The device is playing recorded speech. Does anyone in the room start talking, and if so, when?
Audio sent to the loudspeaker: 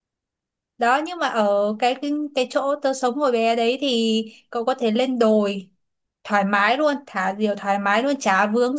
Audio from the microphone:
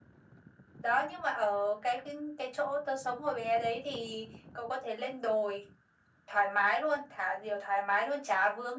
none

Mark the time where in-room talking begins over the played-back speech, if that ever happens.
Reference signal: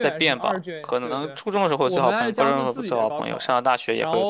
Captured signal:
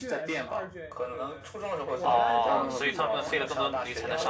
2.0 s

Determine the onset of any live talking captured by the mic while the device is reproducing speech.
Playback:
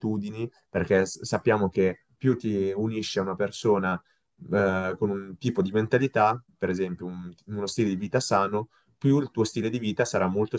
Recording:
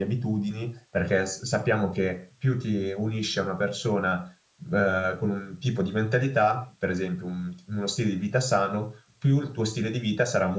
none

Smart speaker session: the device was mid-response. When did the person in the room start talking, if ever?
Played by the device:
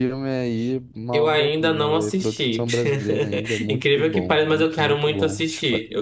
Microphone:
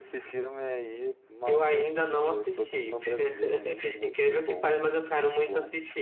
none

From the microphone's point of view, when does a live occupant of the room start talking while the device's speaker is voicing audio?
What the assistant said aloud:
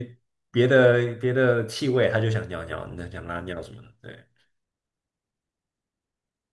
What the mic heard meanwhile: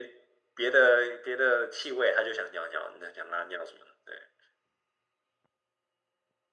none

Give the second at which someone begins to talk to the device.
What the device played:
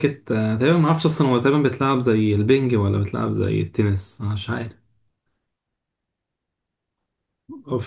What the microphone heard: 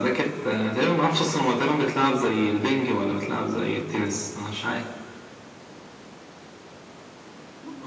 none

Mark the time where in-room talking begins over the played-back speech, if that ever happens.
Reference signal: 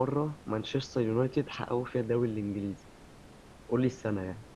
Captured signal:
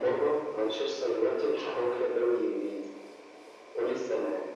none

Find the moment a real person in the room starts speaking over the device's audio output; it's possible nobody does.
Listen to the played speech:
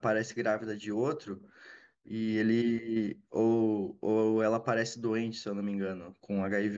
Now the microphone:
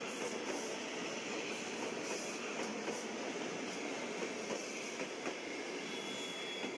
none

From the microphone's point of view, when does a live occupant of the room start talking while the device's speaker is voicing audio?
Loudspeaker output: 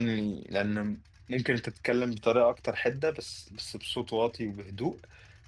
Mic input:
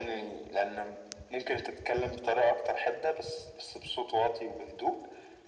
none

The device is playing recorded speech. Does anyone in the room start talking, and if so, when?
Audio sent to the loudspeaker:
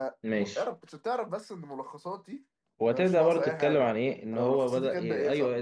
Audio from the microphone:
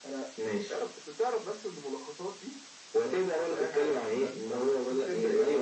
4.1 s

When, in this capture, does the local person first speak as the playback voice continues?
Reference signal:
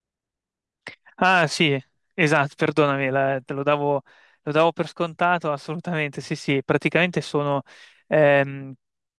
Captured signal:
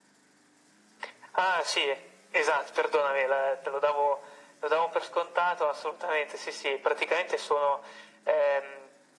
none

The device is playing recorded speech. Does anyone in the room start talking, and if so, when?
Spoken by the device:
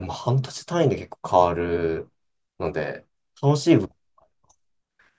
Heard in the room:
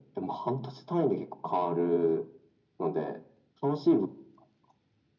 none

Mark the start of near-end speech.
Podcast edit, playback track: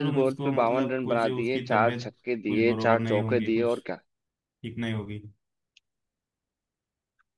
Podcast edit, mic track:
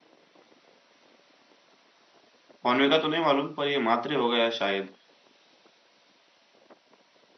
2.6 s

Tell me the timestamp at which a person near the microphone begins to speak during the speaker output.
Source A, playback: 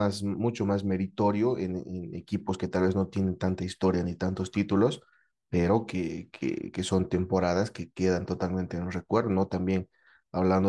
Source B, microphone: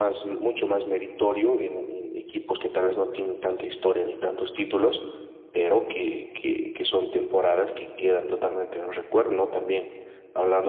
none

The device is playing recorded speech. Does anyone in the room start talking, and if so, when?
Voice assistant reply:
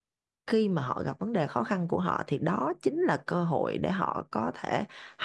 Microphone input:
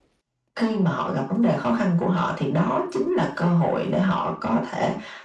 none

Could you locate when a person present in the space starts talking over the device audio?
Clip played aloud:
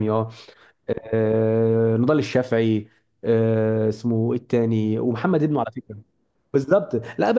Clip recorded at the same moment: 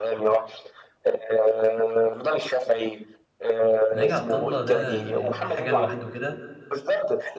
3.9 s

